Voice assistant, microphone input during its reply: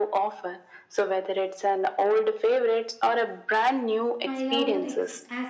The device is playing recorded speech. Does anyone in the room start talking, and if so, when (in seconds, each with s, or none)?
4.2 s